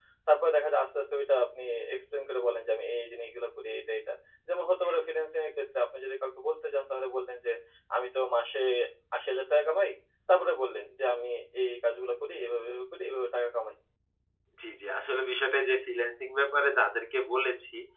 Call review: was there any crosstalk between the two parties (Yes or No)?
No